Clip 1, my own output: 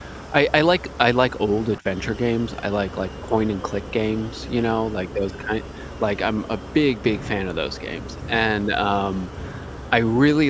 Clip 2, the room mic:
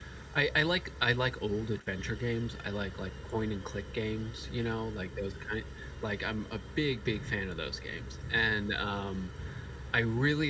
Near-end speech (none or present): none